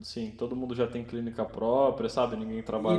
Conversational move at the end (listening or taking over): taking over